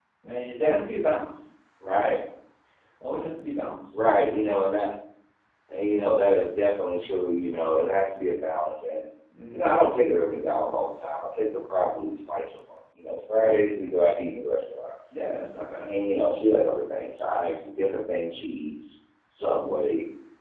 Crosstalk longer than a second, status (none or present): none